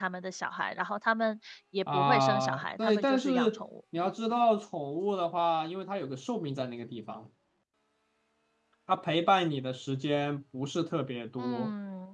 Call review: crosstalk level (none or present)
present